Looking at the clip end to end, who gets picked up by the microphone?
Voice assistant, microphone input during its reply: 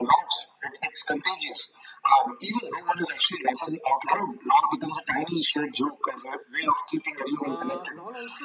both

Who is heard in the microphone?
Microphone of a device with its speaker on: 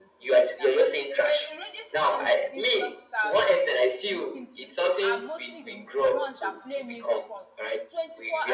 both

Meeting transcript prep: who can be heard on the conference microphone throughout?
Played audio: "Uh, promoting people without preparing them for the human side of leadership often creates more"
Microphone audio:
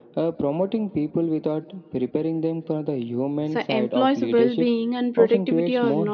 both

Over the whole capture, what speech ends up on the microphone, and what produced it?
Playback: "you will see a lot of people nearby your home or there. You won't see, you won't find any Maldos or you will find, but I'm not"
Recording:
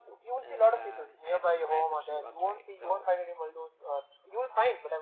both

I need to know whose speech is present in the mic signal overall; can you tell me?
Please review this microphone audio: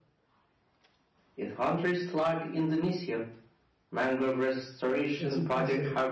both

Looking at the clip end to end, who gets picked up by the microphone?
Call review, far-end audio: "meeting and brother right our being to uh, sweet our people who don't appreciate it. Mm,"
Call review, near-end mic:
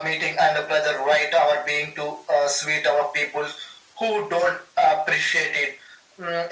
echo only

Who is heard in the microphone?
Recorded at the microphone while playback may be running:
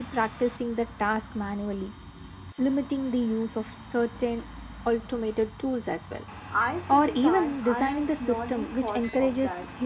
both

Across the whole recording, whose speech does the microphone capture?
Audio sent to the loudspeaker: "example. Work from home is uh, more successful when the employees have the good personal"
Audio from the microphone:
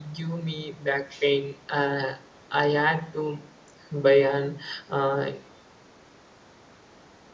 user only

